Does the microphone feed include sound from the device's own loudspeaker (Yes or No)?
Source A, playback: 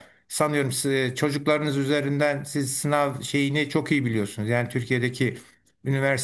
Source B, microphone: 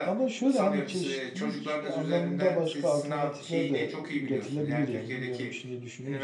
Yes